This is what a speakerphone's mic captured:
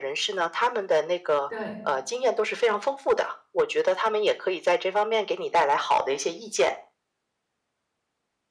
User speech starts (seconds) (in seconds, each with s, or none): 1.5 s